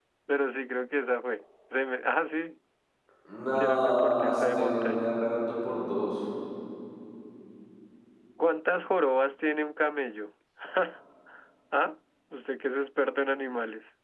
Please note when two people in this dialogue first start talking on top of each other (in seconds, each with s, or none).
3.5 s